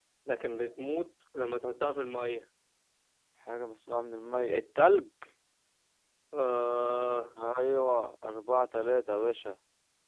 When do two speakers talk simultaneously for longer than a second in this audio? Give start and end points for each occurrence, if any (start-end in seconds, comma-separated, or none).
none